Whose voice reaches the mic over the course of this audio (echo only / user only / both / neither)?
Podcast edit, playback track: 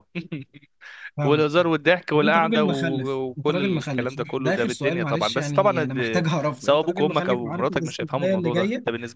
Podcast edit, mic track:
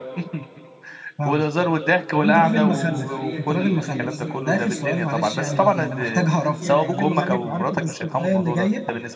both